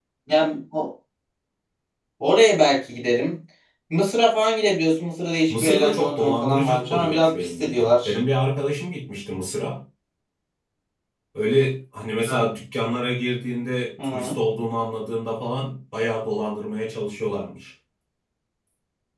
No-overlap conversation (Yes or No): No